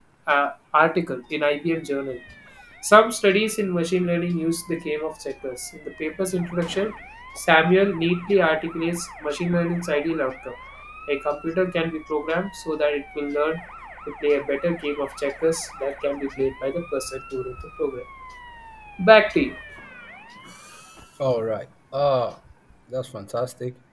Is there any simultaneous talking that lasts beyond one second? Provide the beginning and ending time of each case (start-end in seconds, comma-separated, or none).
none